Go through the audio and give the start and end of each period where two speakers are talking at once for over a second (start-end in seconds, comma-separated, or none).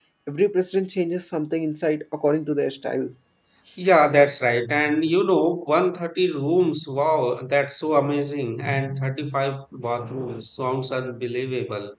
none